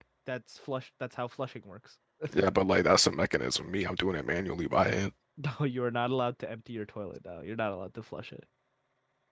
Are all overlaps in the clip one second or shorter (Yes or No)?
Yes